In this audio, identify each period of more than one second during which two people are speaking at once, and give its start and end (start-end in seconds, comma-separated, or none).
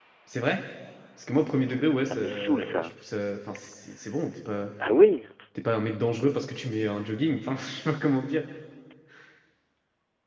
1.7-2.9